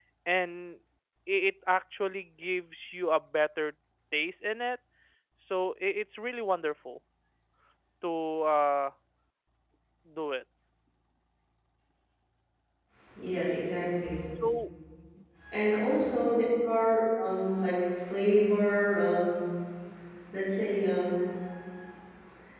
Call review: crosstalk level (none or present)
none